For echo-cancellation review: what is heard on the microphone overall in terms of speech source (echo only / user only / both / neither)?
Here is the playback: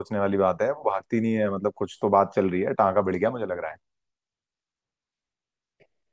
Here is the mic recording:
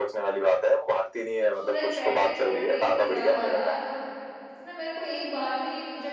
both